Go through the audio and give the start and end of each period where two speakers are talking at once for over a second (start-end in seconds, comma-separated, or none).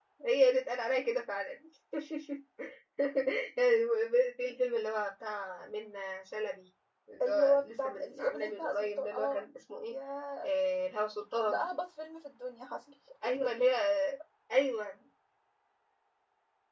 7.2-9.4